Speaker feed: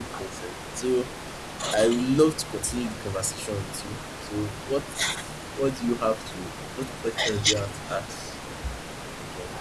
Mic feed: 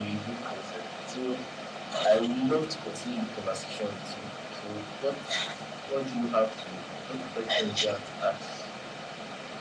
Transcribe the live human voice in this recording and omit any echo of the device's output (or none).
none